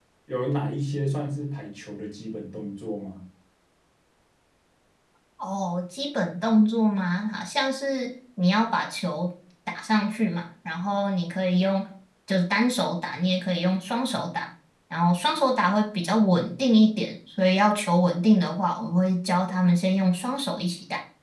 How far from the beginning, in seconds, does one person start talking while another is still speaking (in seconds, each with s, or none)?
none